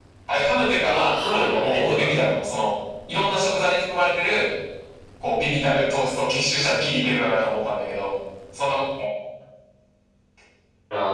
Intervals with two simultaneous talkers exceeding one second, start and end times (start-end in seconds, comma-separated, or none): 0.8-2.2